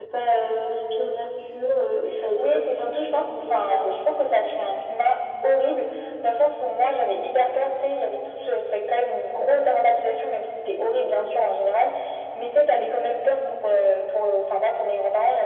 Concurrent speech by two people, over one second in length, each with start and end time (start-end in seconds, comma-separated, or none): 2.4-3.9